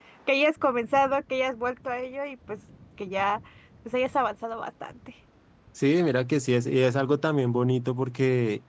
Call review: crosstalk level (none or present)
none